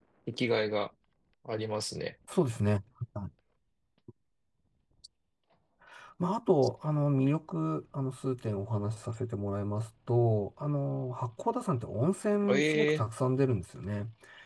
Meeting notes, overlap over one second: none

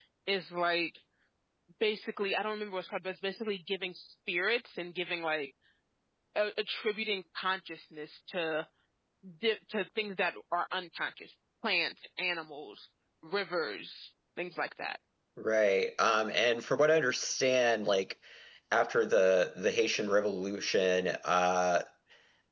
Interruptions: none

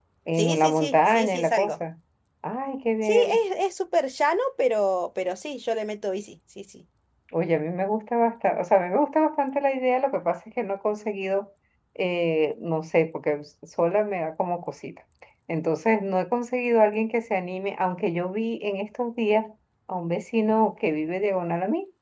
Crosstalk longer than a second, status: present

